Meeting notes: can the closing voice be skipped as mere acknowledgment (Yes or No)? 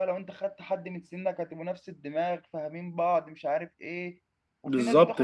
Yes